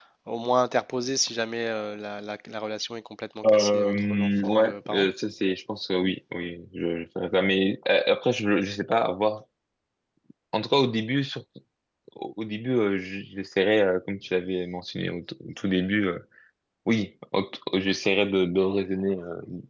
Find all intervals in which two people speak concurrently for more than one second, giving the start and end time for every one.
3.5-5.1

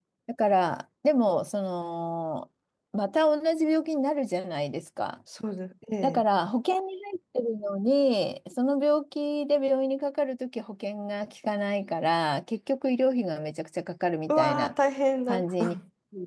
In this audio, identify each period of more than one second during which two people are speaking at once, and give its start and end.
none

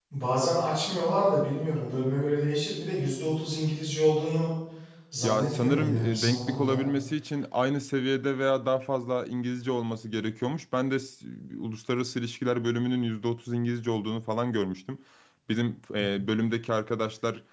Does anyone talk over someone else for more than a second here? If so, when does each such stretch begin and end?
5.2-6.8

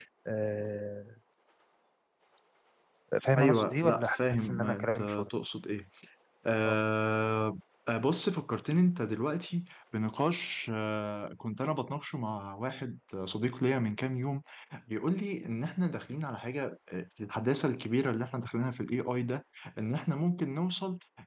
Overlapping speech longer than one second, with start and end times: 3.4-5.3

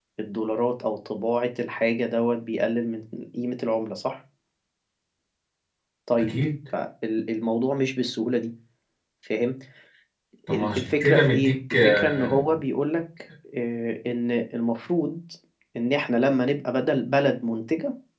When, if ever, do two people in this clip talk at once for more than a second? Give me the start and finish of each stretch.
10.5-12.4

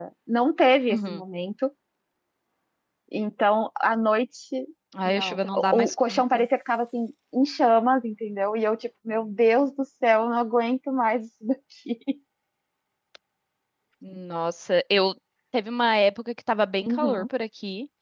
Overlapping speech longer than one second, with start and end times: 5.0-6.5

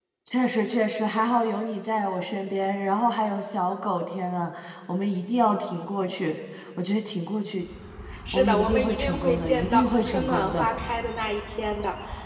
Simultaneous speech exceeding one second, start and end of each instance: 8.3-10.7

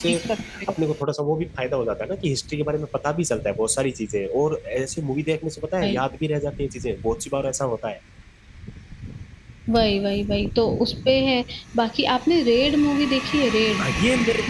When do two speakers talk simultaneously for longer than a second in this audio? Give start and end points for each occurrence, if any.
none

